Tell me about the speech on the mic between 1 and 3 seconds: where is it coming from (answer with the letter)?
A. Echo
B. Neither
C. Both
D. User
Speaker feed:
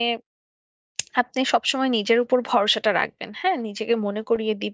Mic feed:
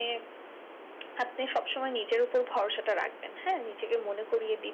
A